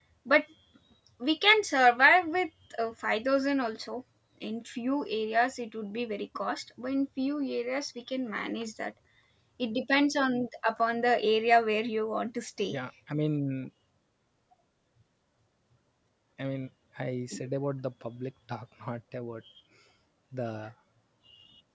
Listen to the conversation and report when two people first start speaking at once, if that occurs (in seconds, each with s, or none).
none